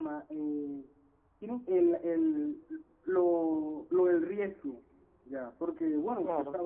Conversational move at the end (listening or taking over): listening